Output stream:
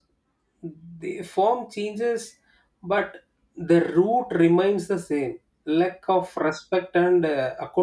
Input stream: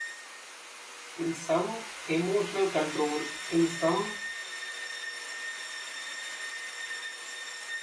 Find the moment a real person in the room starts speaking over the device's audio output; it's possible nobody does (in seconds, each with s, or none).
1.1 s